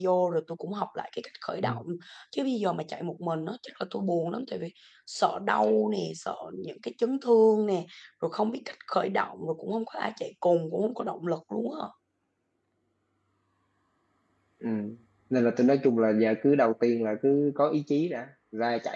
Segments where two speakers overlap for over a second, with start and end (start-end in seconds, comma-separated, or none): none